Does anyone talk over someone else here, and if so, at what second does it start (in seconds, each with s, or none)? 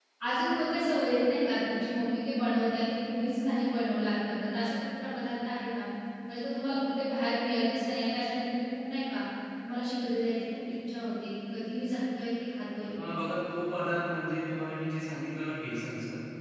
none